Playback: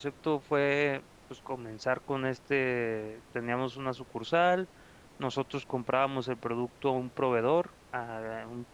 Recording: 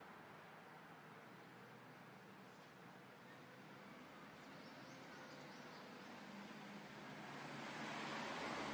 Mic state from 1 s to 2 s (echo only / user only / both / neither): neither